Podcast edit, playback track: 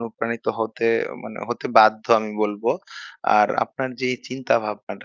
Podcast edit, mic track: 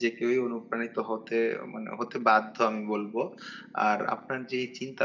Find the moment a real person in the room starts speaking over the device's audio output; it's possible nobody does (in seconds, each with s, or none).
none